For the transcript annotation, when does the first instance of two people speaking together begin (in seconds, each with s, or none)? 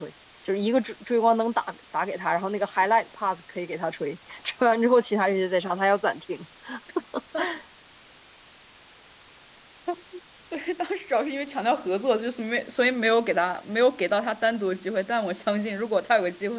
none